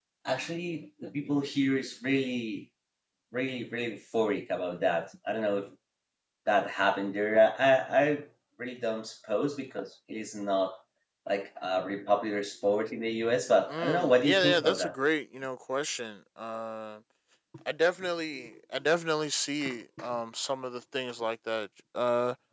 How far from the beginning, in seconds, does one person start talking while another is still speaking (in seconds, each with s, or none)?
13.7 s